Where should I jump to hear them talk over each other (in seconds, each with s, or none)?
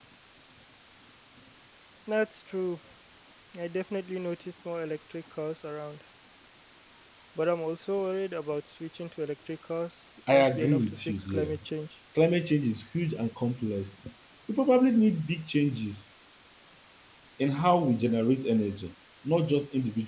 10.3 s